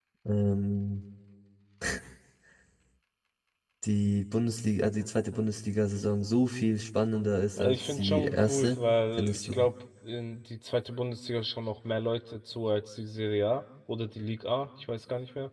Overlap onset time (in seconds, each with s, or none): 7.6 s